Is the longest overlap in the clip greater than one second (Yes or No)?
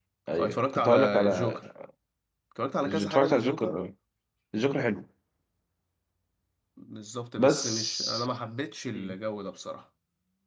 Yes